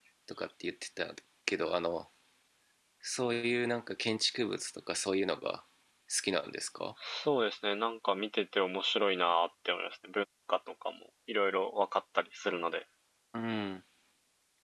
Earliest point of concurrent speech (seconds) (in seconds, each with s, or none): none